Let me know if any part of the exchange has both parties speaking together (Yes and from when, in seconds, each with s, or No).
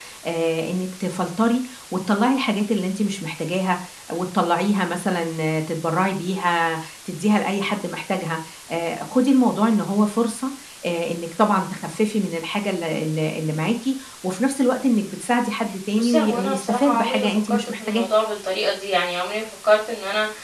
Yes, from 15.9 s